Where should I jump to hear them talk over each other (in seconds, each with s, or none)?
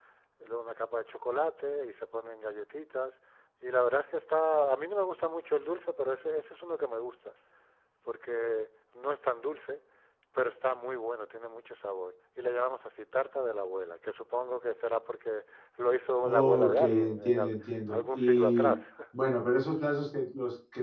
16.2 s